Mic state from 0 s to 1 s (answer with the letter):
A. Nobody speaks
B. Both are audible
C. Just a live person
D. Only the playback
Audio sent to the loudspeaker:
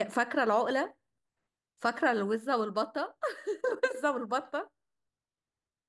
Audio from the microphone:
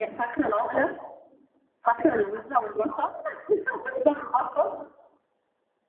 D